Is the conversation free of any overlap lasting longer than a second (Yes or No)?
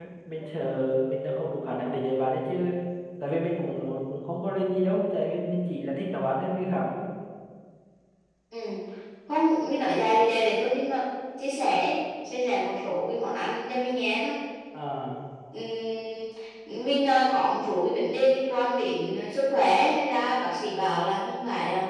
Yes